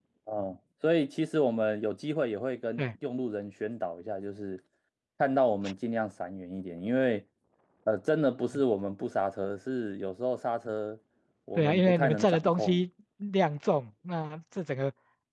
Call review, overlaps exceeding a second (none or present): present